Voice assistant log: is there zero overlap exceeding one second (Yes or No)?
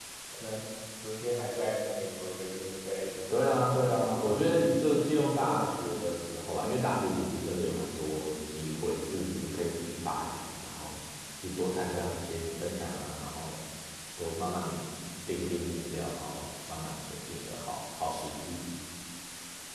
No